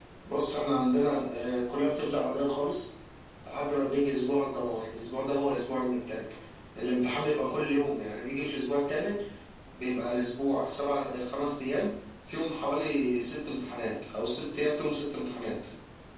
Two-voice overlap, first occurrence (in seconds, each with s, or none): none